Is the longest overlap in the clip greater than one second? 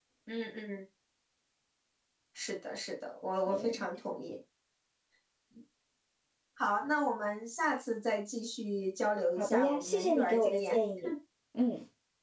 Yes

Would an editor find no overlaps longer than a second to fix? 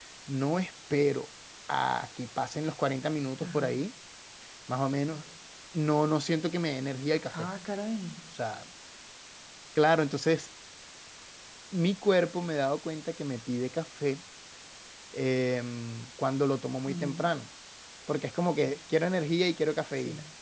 Yes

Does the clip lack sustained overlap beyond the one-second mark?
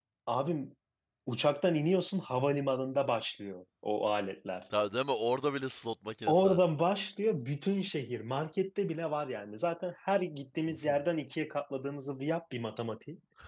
Yes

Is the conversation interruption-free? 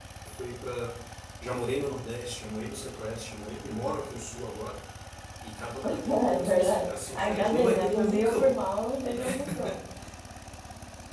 No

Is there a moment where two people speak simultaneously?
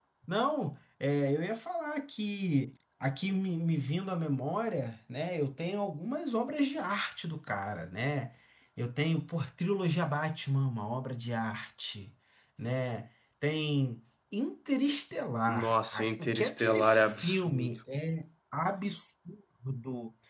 Yes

